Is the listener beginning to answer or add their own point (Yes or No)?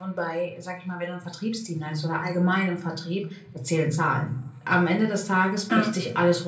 No